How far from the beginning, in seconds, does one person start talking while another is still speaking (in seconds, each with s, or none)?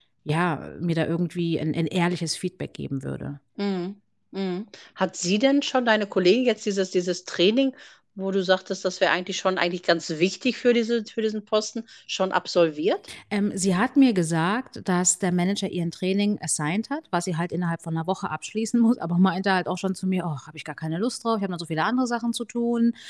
none